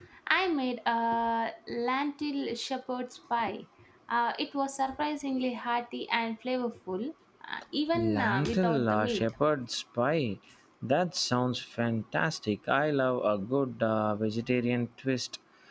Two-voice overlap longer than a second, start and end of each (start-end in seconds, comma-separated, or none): 7.9-9.2